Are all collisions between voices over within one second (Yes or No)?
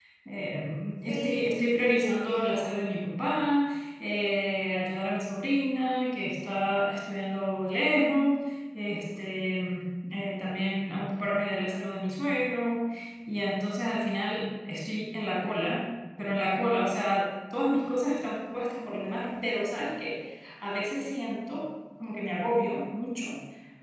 No